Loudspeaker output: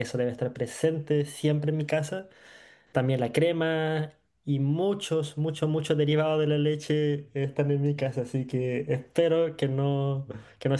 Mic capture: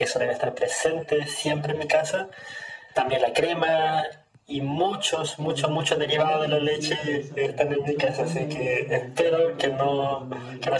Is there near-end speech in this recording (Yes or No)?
Yes